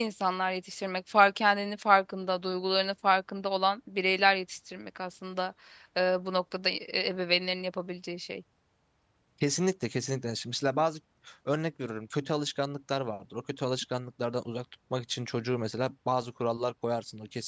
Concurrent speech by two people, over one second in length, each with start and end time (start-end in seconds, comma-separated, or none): none